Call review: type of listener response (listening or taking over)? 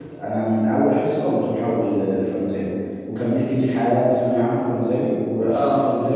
listening